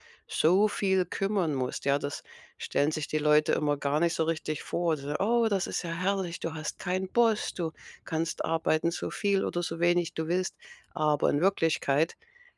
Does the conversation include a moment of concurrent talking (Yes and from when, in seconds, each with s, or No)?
No